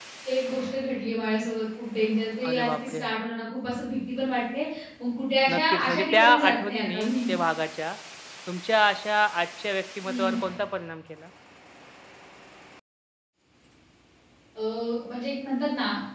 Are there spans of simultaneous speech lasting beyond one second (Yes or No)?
Yes